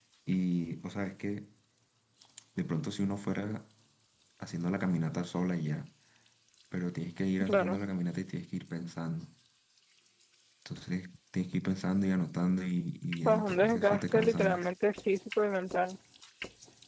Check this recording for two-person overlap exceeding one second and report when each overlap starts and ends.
13.2-14.7

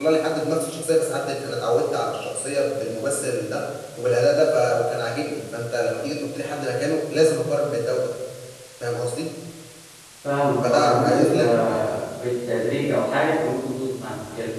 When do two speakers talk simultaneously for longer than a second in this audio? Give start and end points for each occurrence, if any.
10.6-12.0

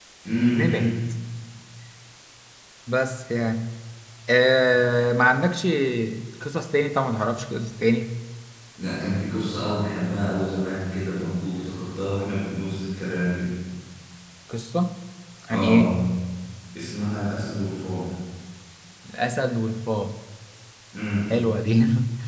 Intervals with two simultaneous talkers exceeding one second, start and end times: none

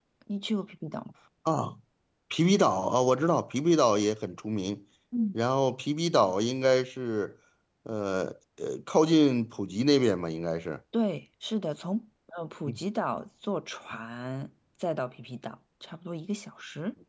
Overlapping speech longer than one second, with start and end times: none

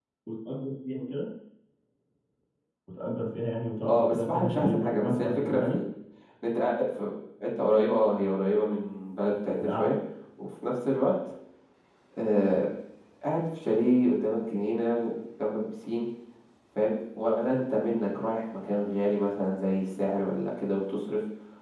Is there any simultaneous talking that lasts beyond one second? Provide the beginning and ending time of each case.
3.8-5.8

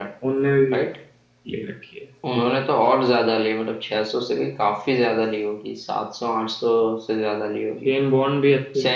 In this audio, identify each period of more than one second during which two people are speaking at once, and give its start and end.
none

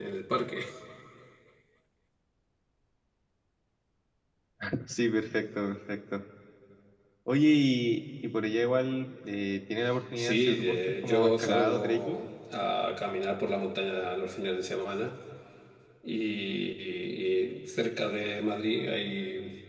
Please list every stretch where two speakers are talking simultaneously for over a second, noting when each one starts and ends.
10.2-12.2

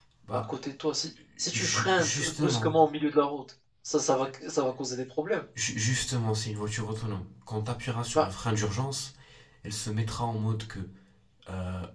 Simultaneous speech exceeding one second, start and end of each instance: 1.5-2.7

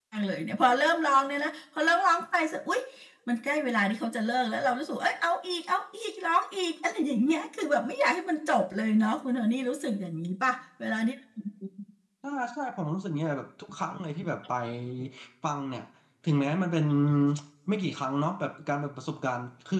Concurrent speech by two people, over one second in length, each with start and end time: none

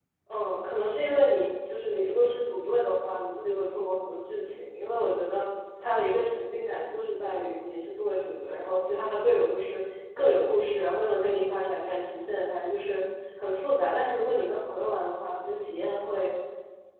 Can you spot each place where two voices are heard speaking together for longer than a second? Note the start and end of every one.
none

